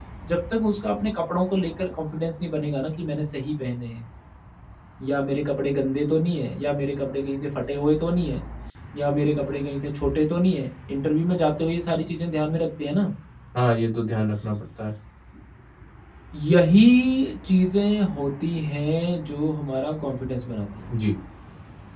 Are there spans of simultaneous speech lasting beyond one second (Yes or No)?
No